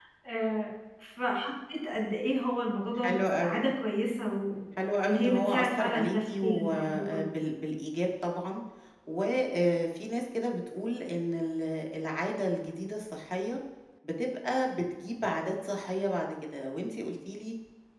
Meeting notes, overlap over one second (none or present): present